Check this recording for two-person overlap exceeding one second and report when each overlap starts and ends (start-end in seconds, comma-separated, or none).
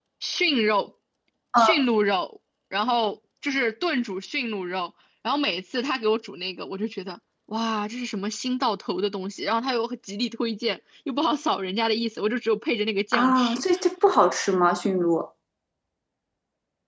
none